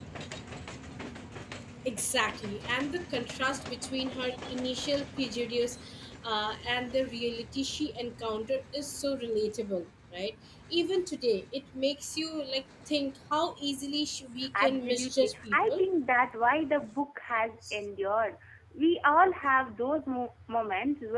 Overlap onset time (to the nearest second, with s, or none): 15 s